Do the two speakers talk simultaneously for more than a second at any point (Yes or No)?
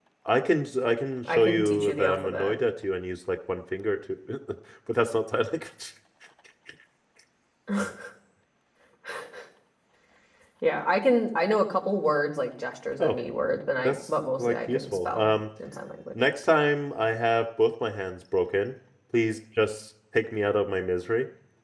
Yes